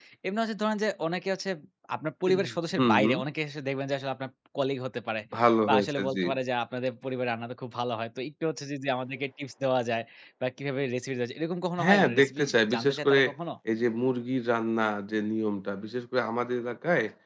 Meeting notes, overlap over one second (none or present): present